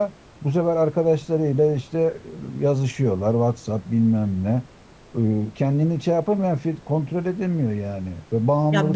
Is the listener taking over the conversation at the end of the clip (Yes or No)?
Yes